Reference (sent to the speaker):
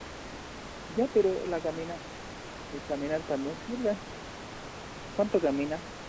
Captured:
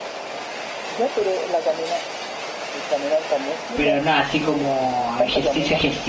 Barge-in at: 3.7 s

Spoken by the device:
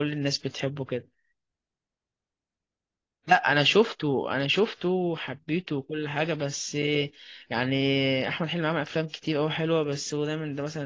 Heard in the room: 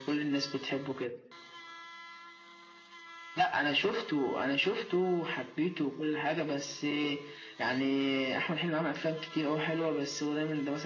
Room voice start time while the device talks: none

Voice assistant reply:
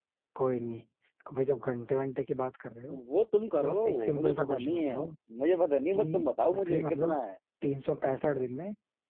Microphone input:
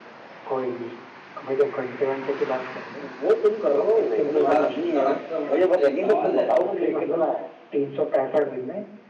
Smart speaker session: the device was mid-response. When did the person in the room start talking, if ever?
4.4 s

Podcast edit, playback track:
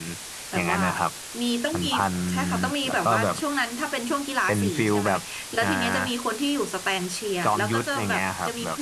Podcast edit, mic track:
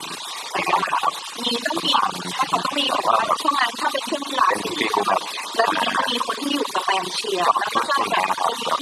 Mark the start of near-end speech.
none

